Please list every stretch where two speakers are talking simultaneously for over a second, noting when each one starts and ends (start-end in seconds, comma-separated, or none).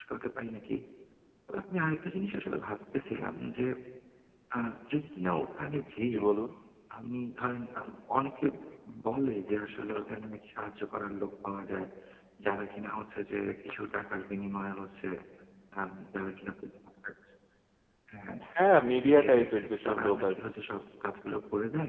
19.0-20.3